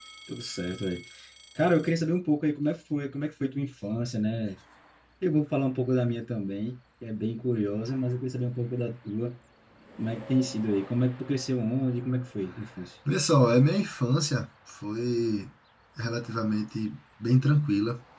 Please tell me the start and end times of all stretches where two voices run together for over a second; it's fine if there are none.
none

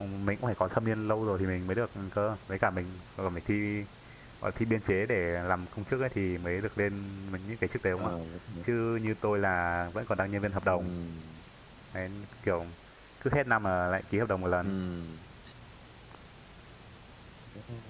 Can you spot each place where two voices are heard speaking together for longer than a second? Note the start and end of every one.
none

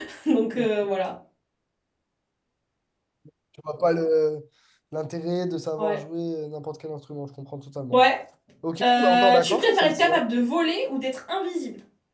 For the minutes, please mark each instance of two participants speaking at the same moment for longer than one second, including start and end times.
8.8-10.2

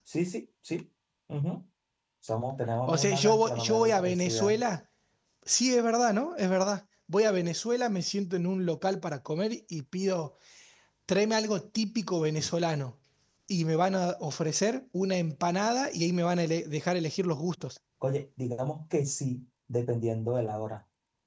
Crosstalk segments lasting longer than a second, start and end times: 2.9-4.6

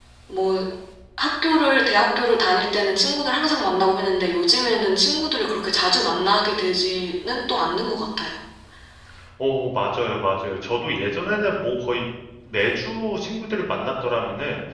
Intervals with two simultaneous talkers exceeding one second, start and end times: none

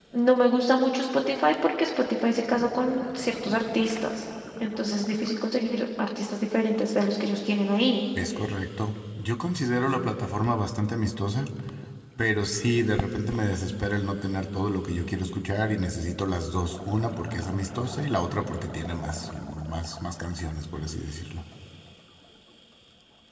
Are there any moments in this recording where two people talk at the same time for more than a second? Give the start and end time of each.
none

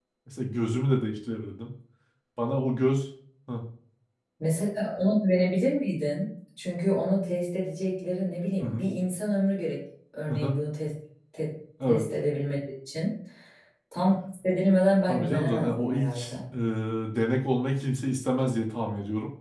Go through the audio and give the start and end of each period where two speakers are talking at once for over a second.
15.1-16.3

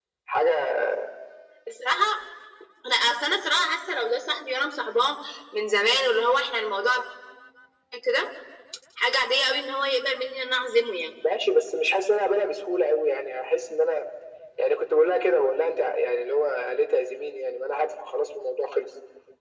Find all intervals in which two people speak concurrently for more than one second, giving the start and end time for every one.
none

